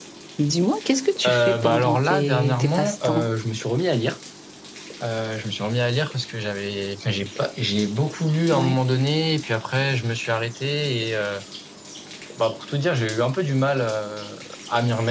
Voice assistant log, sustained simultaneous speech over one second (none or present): present